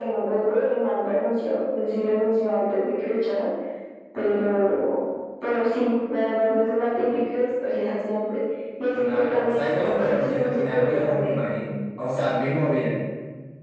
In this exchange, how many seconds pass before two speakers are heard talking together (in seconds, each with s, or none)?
9.0 s